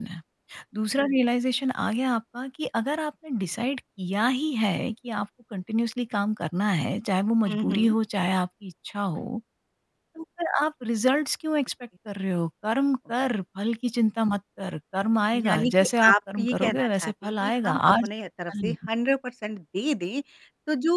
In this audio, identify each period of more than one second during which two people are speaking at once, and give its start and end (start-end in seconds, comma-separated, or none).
15.4-18.1